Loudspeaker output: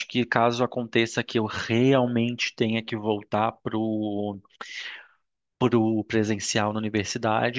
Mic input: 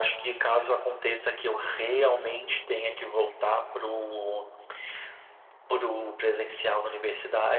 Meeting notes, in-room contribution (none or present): none